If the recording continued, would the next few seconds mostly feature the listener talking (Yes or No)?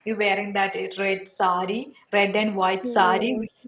Yes